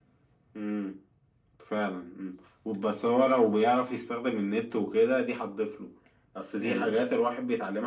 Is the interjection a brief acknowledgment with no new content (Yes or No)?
Yes